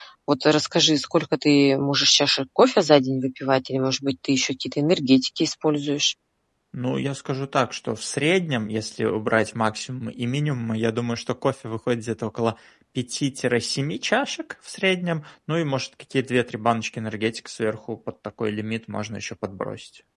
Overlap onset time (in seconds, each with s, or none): none